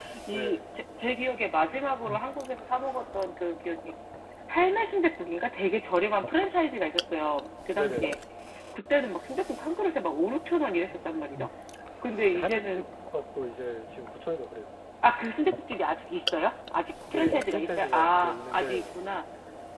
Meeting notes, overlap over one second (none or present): present